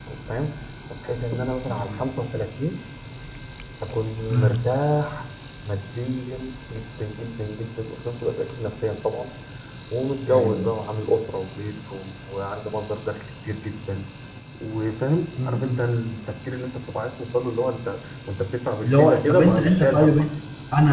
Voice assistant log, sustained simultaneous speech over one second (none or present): present